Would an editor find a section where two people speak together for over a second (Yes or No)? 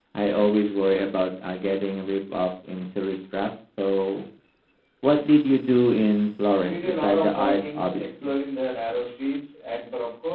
Yes